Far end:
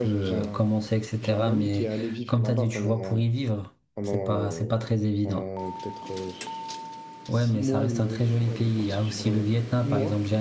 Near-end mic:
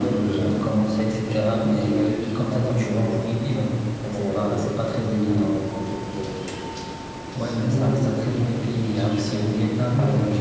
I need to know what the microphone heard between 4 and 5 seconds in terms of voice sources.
echo only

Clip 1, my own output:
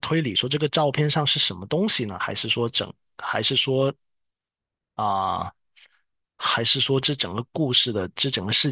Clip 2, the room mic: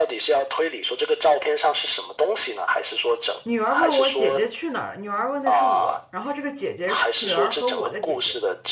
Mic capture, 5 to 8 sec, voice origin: both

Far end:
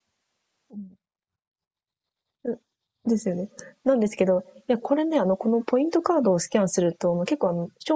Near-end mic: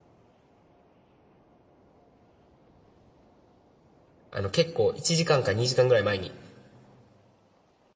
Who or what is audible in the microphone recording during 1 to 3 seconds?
neither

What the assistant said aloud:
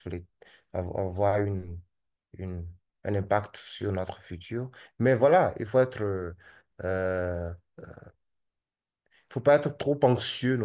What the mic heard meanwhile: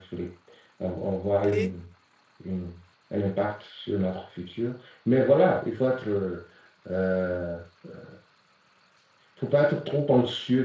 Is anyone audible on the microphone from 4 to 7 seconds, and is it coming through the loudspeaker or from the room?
echo only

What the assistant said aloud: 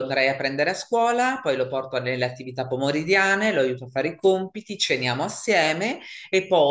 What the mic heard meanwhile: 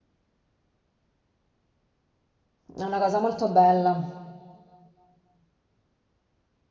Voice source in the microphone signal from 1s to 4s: user only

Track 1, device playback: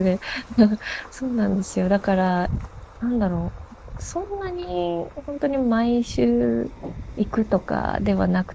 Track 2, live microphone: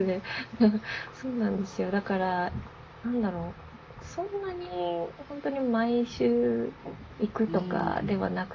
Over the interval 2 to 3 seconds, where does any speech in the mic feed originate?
echo only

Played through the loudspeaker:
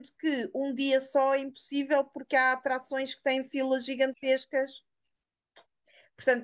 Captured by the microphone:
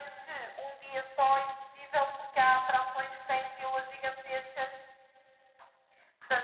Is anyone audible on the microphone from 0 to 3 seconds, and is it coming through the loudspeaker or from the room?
echo only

